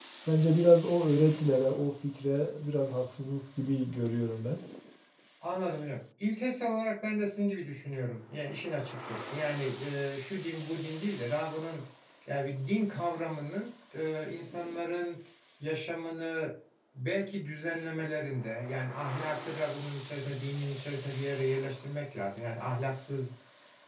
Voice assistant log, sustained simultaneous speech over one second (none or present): none